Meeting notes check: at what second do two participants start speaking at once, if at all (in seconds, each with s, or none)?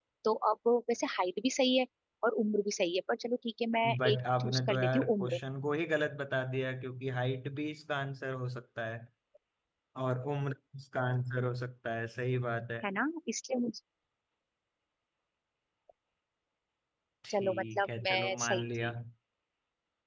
4.0 s